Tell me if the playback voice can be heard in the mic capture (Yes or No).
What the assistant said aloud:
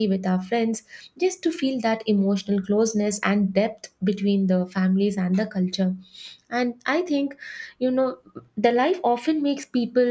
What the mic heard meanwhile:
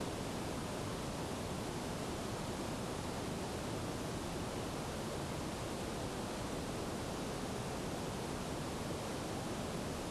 No